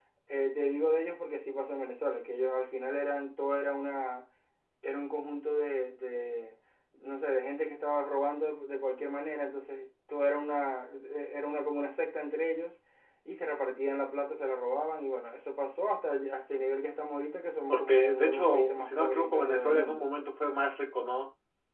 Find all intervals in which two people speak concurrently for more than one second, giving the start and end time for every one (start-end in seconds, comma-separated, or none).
17.7-20.0